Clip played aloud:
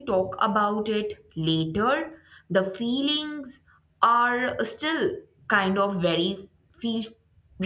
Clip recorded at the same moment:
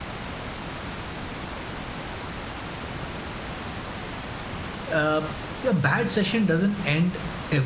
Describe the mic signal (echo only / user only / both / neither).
user only